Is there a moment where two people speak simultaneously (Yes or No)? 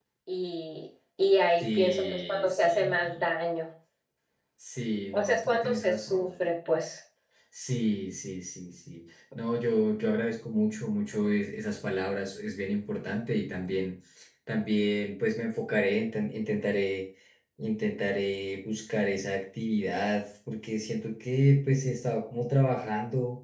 Yes